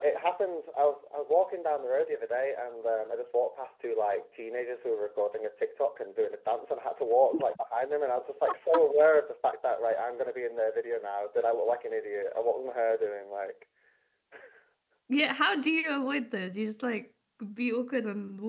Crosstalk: none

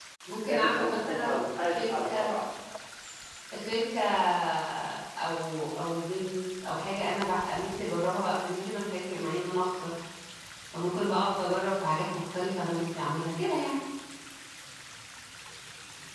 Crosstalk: present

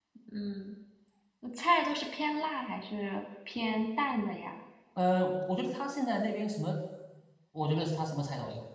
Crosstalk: none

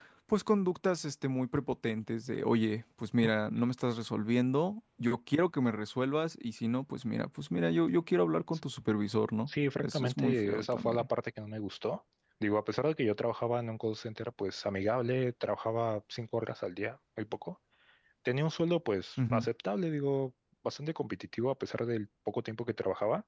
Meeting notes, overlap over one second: present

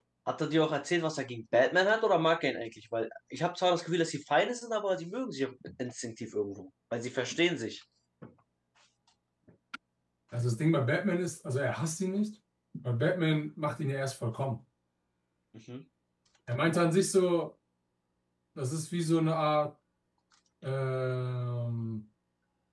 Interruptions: none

